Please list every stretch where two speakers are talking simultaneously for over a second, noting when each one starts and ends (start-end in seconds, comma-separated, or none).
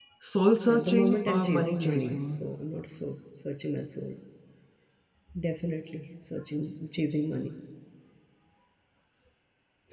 0.7-2.2